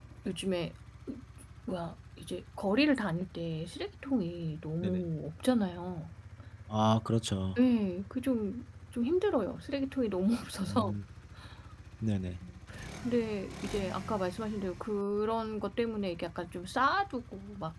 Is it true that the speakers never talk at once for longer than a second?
Yes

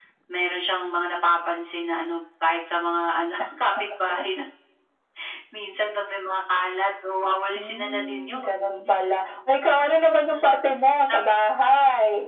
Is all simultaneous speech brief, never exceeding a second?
No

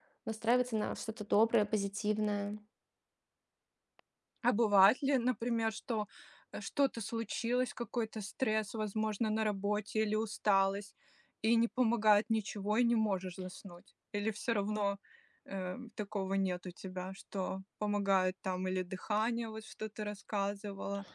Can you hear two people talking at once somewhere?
No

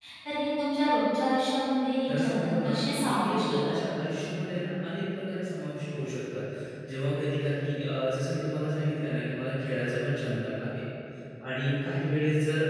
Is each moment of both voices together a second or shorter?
No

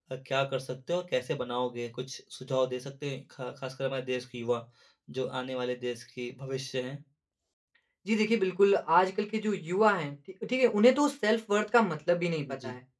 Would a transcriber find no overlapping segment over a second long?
Yes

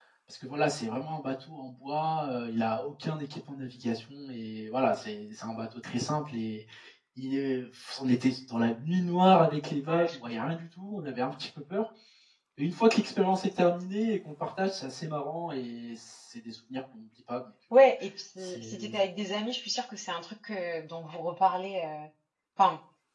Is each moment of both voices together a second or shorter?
Yes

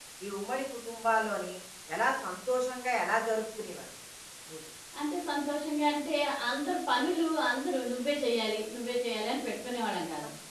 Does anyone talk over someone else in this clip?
No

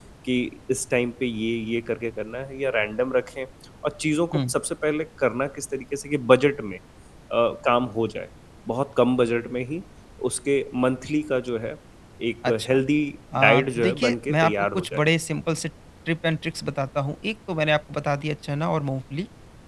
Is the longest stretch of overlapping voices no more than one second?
No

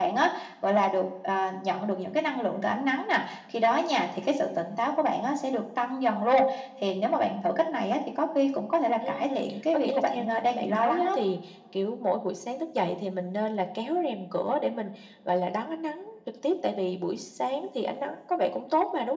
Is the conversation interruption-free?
No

